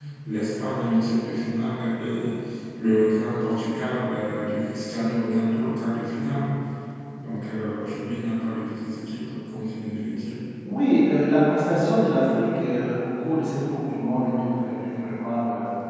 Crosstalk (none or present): none